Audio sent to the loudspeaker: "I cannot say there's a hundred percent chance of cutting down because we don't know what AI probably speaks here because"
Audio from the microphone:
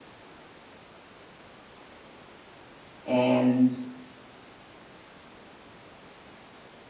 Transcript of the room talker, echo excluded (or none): and